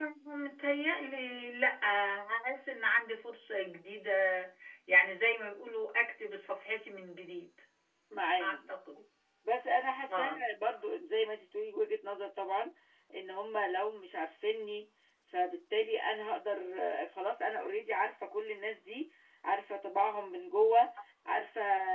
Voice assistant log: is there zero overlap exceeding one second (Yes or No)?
Yes